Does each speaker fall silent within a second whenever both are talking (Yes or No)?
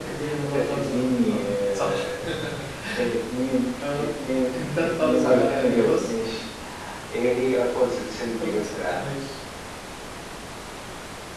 No